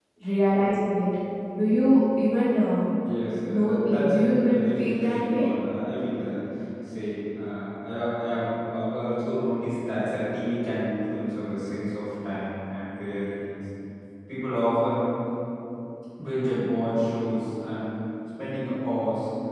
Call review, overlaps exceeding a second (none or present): present